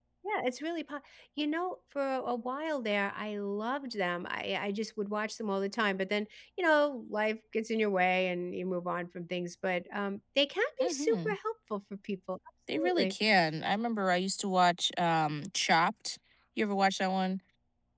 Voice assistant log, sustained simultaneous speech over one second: none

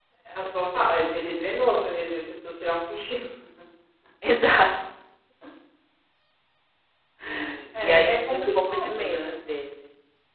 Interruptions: present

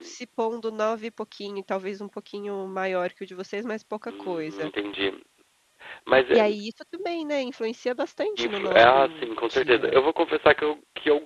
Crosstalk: present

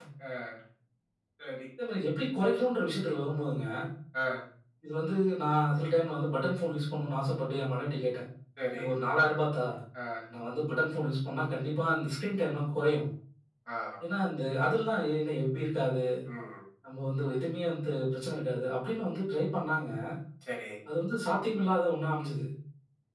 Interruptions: none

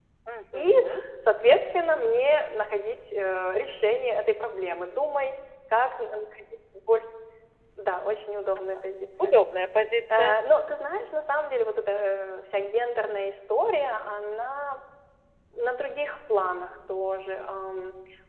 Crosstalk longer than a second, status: none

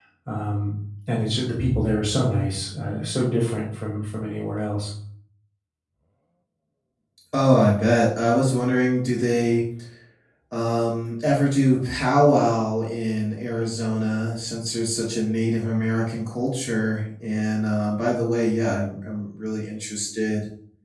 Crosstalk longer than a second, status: none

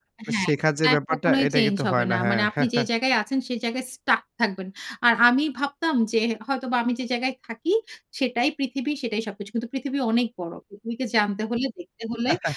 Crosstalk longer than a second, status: present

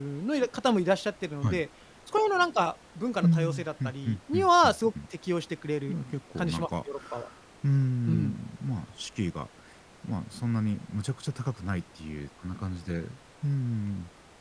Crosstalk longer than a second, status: present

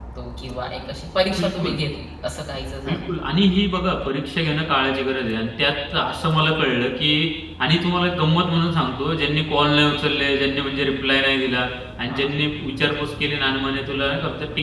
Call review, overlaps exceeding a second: none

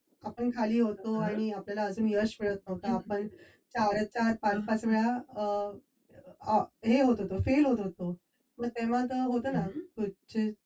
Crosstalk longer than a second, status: none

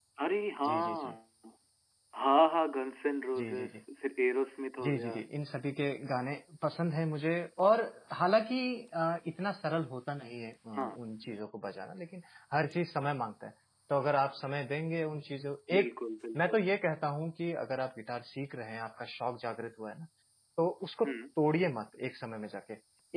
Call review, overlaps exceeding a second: none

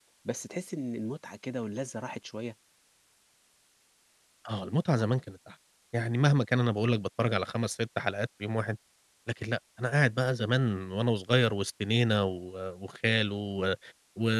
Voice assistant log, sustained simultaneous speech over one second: none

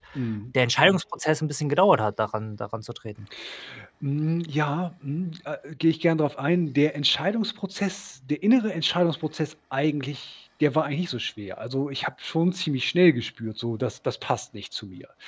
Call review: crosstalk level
none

